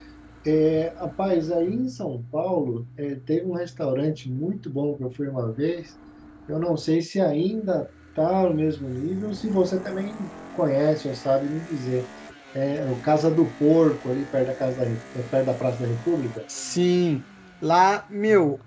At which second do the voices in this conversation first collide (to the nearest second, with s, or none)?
none